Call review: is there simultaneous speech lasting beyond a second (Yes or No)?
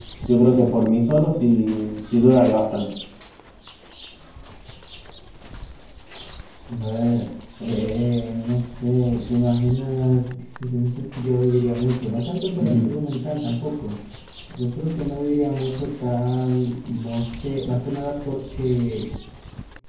No